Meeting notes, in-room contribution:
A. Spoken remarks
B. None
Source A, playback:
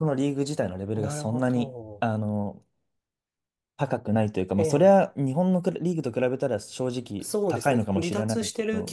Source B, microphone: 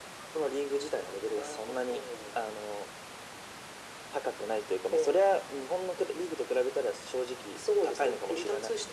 B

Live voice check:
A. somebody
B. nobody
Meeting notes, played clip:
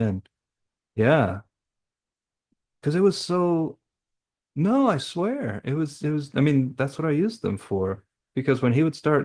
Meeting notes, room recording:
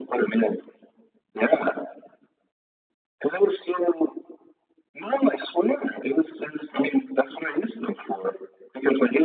B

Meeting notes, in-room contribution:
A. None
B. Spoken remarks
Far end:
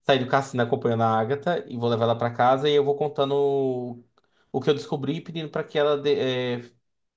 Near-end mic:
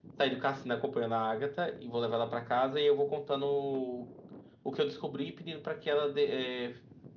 A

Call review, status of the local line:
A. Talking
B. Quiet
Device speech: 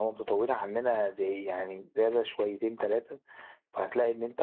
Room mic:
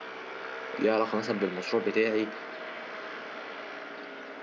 A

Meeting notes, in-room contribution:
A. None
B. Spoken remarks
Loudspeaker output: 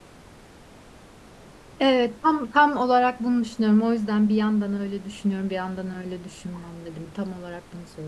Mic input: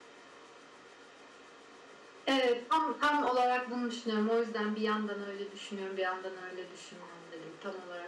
A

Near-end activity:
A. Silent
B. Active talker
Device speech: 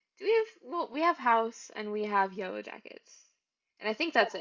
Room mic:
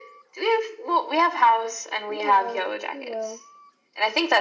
B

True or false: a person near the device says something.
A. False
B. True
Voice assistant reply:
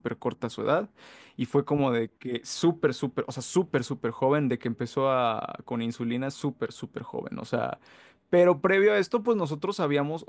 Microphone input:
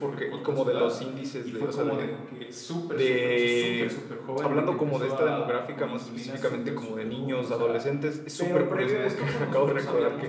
B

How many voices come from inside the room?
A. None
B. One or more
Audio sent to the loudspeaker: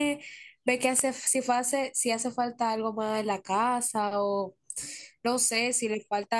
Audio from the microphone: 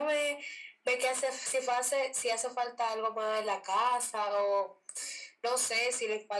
A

